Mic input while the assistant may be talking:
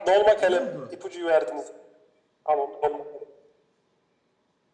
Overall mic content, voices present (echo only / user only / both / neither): both